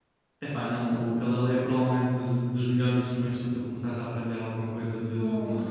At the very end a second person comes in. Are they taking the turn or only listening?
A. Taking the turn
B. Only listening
A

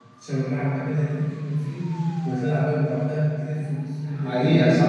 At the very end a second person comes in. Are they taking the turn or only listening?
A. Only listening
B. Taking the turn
B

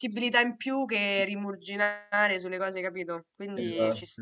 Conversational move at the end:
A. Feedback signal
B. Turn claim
B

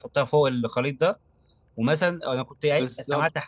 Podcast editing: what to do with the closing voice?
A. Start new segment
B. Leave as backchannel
B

